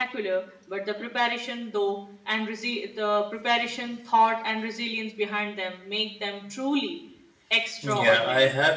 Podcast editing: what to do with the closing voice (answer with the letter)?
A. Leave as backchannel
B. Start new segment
B